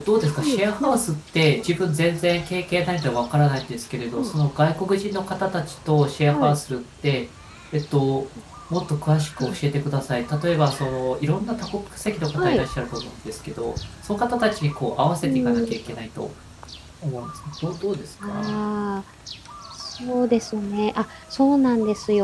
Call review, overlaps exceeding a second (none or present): none